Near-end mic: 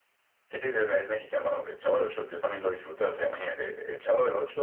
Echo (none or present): none